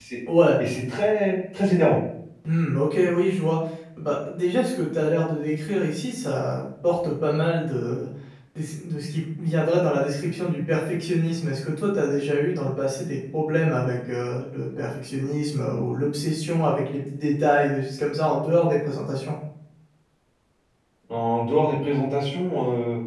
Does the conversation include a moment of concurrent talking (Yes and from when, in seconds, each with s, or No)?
No